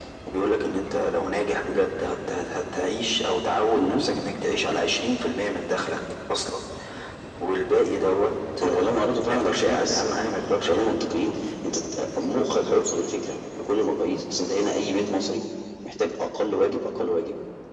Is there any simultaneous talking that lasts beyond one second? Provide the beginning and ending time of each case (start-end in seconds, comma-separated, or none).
8.6-10.9